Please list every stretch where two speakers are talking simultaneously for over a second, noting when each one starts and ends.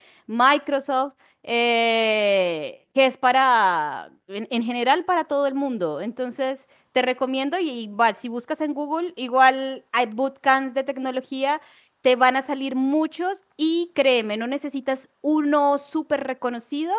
none

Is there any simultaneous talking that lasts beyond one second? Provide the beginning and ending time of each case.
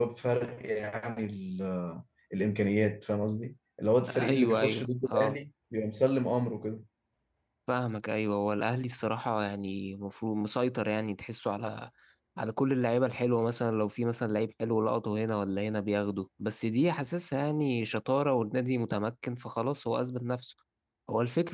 4.1-5.4

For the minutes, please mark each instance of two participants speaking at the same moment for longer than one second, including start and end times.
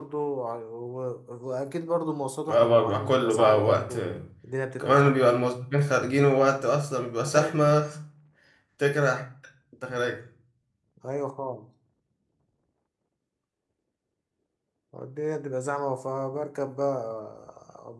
2.5-4.0

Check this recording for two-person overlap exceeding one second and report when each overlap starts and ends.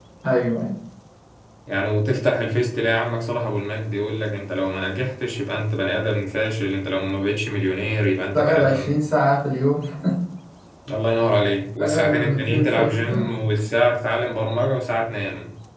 11.8-13.2

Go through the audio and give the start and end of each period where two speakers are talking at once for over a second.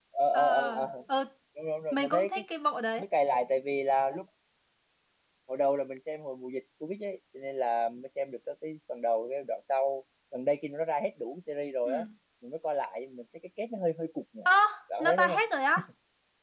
none

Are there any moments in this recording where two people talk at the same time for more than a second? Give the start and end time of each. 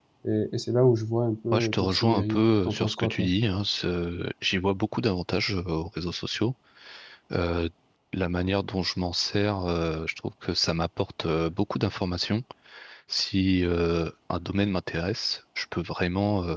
1.5-3.3

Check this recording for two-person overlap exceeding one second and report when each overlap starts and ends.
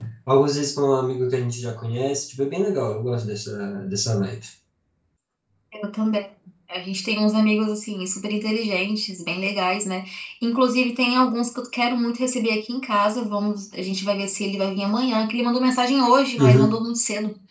none

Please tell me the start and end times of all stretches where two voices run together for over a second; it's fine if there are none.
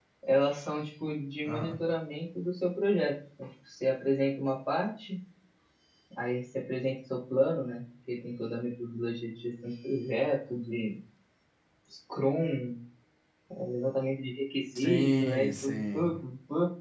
14.8-16.2

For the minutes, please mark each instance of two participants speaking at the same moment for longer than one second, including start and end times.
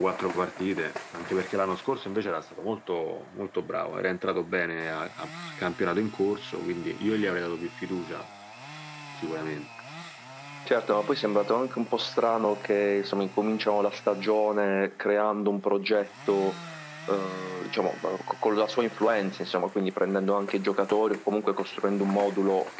none

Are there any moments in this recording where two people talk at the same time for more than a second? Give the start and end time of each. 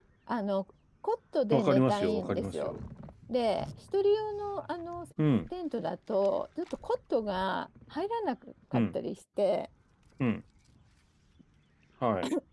1.5-2.7

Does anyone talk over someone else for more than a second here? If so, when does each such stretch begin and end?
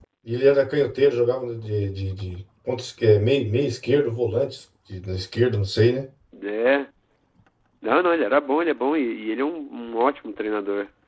none

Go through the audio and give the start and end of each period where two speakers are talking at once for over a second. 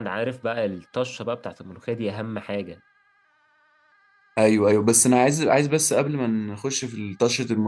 none

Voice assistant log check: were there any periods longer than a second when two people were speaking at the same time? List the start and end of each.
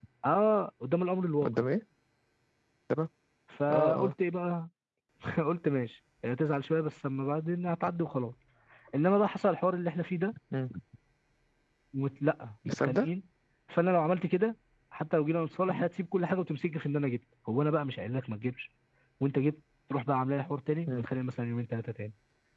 none

